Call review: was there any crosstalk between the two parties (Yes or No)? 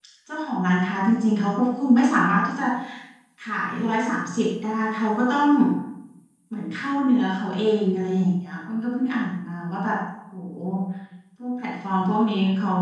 No